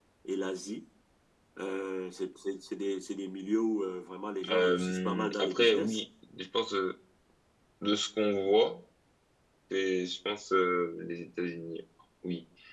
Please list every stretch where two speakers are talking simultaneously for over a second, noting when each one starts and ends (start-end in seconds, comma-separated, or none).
4.5-6.0